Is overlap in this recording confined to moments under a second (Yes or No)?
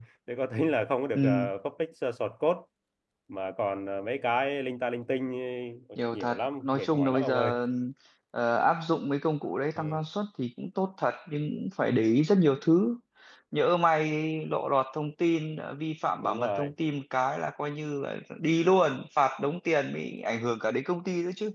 No